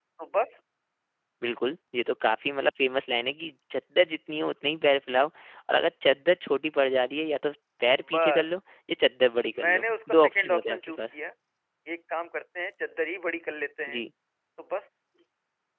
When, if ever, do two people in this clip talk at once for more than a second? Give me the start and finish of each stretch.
9.6-11.1

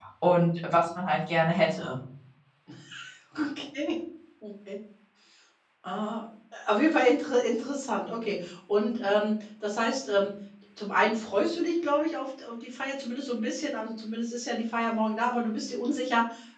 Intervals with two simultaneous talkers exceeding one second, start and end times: none

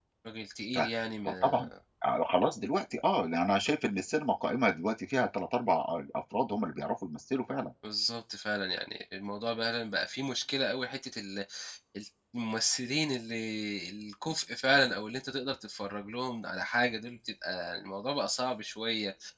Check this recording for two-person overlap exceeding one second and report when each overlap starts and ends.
none

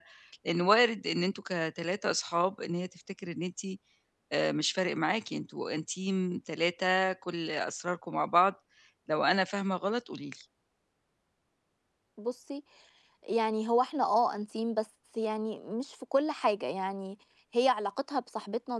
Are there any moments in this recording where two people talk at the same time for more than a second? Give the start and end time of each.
none

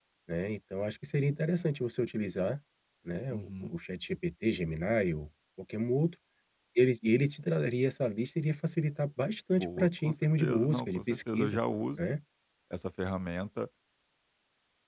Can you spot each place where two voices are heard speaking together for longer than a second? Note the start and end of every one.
9.5-11.6

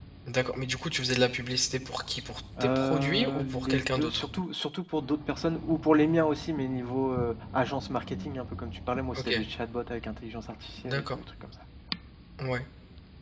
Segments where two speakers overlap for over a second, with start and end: 2.6-4.2

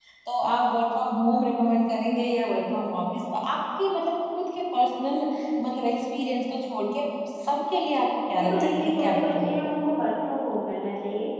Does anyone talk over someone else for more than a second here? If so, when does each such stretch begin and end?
8.4-9.7

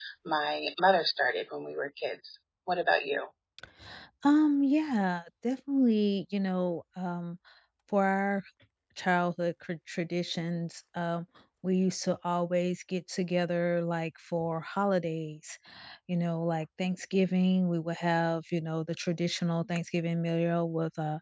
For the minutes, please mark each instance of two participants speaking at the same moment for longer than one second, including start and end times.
none

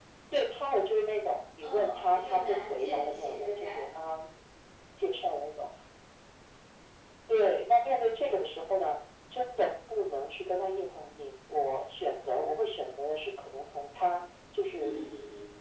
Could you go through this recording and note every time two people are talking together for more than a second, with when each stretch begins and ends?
1.6-3.9

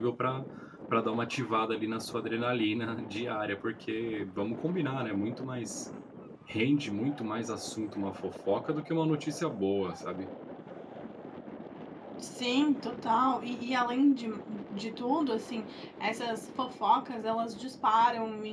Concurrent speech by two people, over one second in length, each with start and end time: none

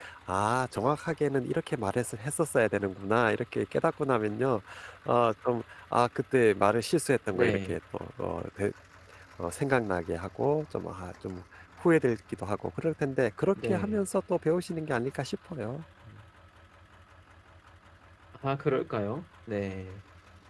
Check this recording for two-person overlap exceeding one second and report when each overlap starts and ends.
none

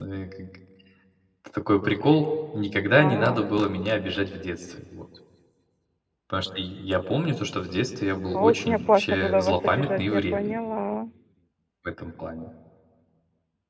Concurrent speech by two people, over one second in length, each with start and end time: 8.3-10.6

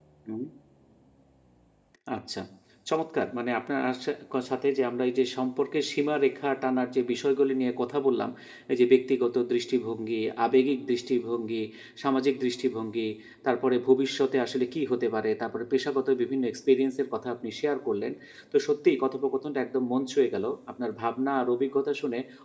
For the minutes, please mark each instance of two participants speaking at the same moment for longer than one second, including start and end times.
none

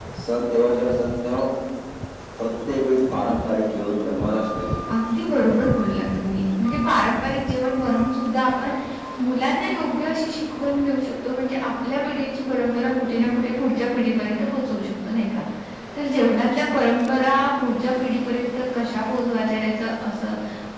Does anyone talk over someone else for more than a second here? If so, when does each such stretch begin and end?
none

